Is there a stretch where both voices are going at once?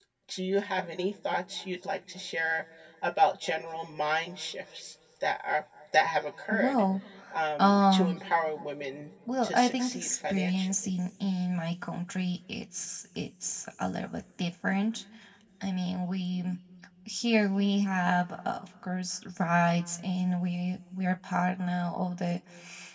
Yes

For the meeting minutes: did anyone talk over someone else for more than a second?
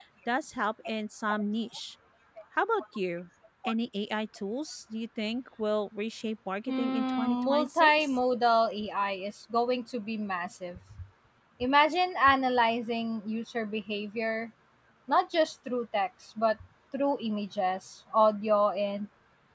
Yes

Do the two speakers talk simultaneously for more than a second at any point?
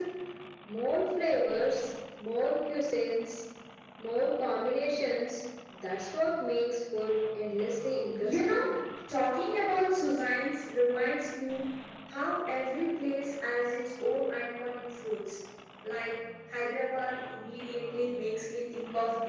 No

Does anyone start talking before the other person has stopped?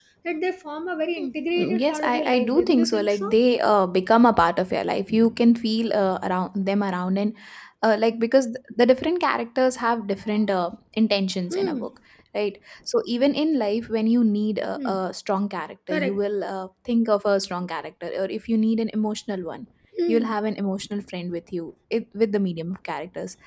Yes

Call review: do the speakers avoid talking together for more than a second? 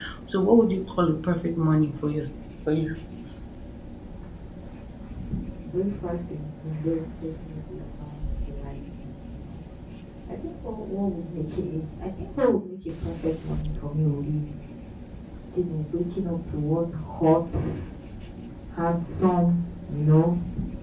Yes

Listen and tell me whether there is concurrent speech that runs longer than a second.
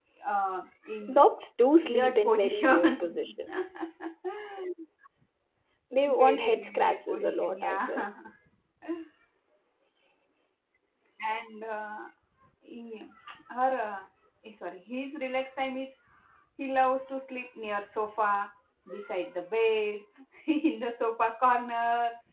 Yes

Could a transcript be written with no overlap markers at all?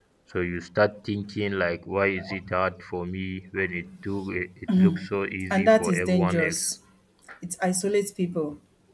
No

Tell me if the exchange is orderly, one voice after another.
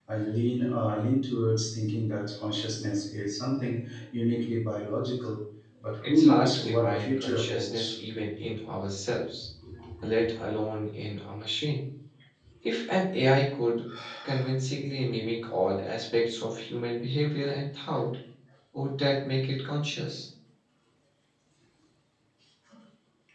No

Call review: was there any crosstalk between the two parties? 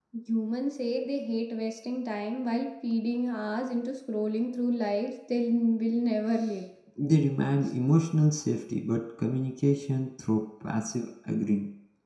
No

